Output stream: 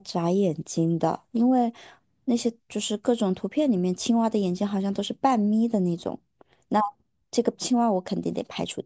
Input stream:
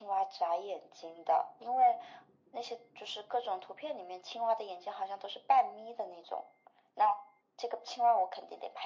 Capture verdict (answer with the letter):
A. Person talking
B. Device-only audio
B